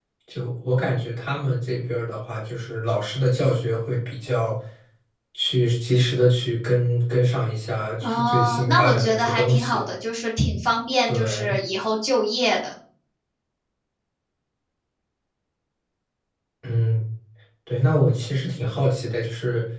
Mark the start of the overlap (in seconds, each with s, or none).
8.0 s